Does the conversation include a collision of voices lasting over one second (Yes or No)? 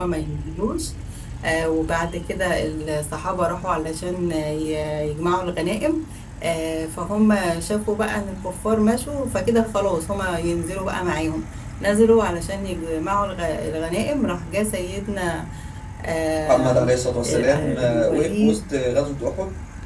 Yes